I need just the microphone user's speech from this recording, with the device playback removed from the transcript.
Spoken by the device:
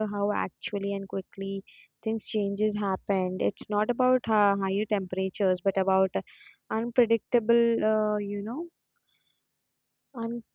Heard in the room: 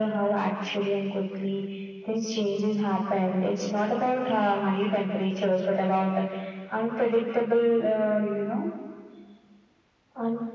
none

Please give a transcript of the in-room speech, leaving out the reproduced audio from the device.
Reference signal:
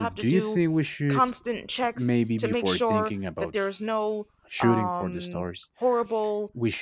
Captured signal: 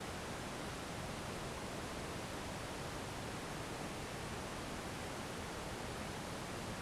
none

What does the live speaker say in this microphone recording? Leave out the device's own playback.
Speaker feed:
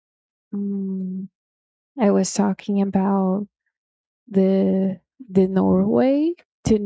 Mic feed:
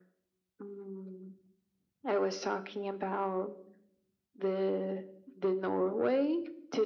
none

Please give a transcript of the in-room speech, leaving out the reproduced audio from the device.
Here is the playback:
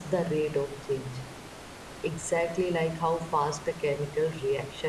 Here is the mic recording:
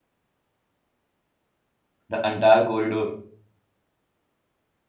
The entire corridor,

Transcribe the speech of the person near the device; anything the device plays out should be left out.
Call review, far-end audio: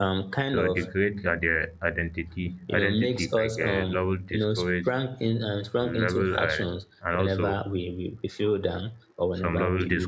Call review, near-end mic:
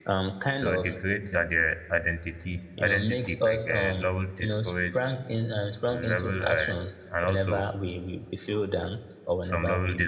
none

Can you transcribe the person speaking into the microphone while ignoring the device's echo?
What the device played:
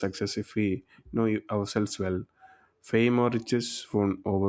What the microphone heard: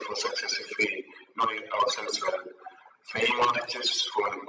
none

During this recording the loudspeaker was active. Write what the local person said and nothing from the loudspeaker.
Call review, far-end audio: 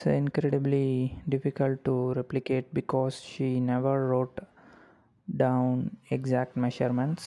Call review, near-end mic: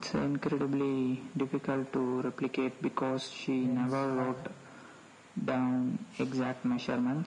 dense, but

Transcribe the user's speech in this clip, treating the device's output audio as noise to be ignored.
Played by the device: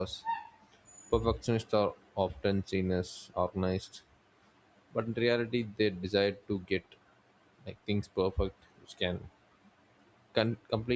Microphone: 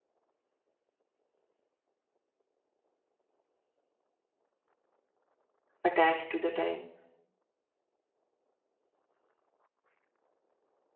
attached to the time.

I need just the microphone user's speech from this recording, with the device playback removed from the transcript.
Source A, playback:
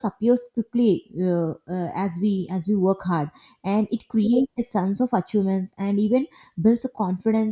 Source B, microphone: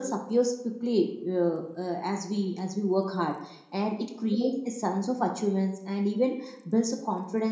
none

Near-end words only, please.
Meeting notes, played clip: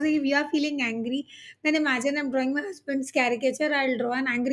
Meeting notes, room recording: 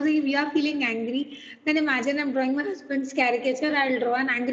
none

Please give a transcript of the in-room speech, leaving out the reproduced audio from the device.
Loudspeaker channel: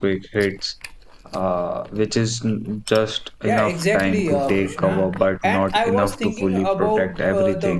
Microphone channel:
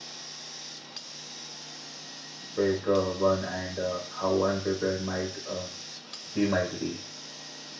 big uh, one and uh, how unprepared might uh, we might be.

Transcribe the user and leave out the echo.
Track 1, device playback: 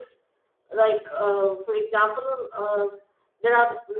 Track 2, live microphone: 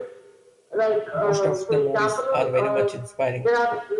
most of the movies are very much inspiring

